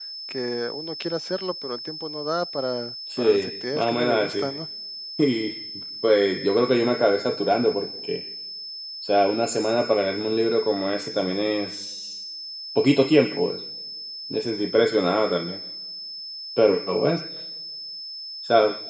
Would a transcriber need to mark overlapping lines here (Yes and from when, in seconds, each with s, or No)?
Yes, from 3.1 s